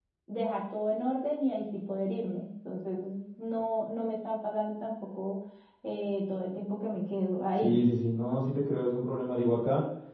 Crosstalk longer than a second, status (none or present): none